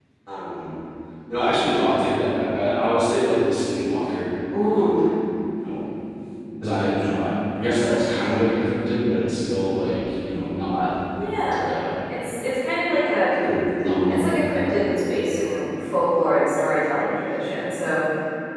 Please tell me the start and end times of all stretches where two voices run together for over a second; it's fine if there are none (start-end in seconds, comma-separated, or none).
none